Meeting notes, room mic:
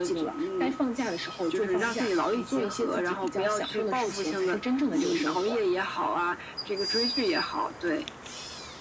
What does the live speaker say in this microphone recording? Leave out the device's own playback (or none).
none